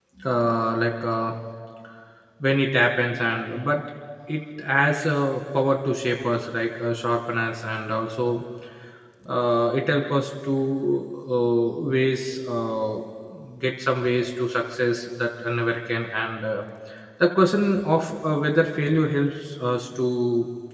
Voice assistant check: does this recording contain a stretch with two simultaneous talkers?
No

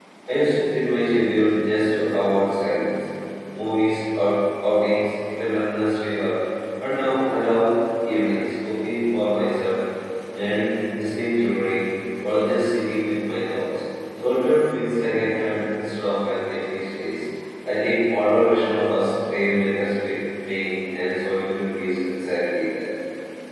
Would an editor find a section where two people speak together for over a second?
No

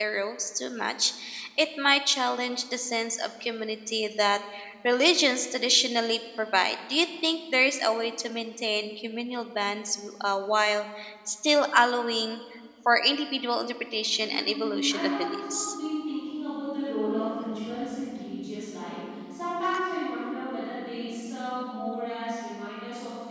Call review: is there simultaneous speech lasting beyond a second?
Yes, from 14.2 s

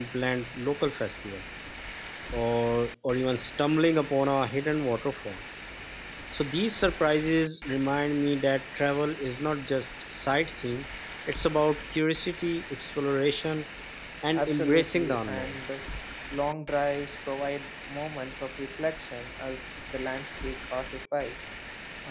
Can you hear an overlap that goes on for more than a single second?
Yes, from 14.4 s

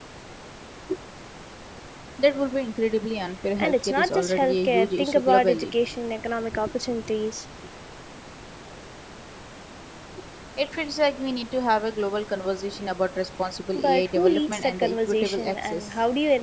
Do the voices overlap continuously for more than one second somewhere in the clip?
Yes, from 3.6 s

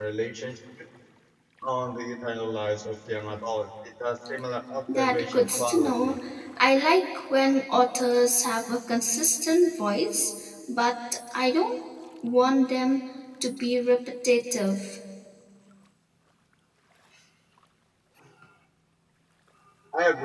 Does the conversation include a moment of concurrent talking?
Yes, from 4.9 s

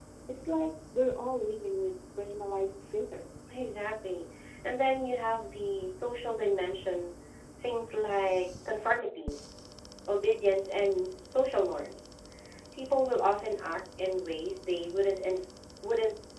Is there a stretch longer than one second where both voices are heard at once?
No

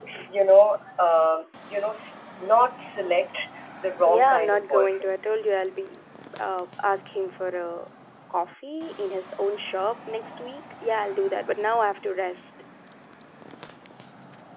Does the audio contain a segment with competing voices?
Yes, from 4.0 s

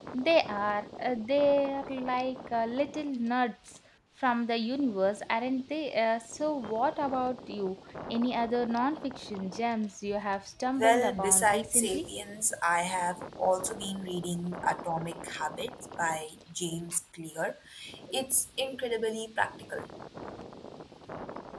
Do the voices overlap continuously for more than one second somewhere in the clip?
Yes, from 10.8 s

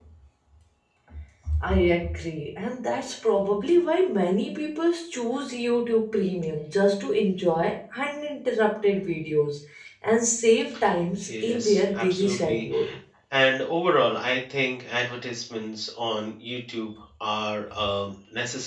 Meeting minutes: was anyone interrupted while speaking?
Yes, from 11.2 s

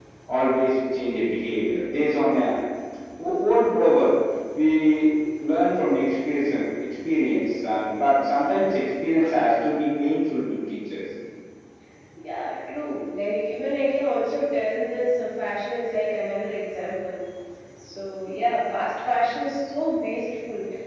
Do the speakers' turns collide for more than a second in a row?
No

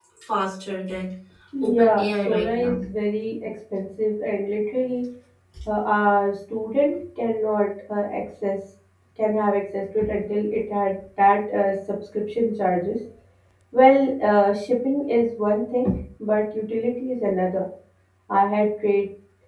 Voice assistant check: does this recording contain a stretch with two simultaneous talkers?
Yes, from 1.6 s

